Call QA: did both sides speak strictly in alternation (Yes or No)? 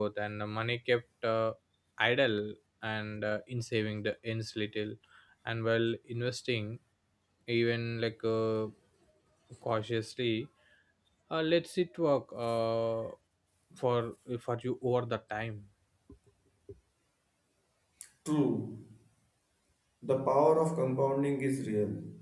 Yes